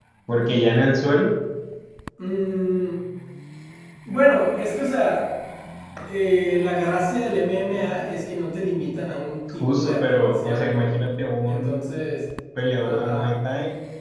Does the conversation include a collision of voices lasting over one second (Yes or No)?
Yes